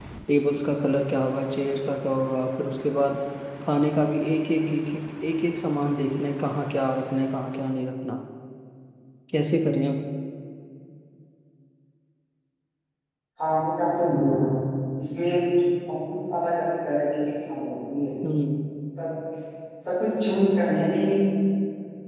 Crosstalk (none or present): none